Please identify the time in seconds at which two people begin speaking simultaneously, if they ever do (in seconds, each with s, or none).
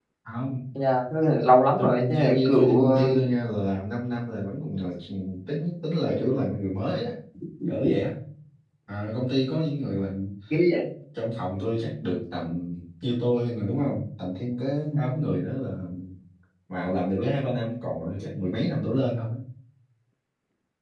1.8 s